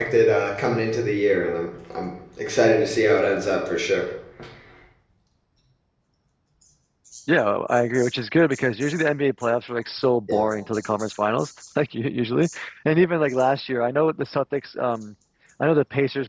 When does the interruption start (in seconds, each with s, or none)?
none